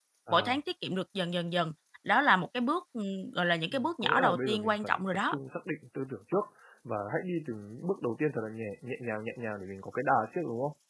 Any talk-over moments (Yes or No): Yes